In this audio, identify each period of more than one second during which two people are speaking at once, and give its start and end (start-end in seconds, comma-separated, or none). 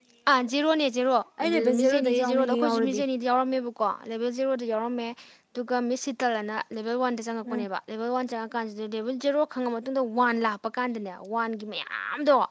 1.4-3.0